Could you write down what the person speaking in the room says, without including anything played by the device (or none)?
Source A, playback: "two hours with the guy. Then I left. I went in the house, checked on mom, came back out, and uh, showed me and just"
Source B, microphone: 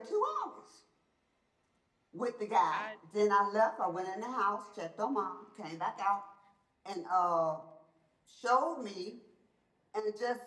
I